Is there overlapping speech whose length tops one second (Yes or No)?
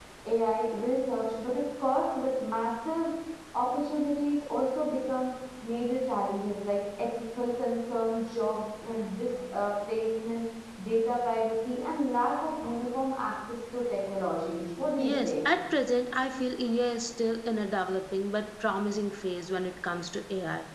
No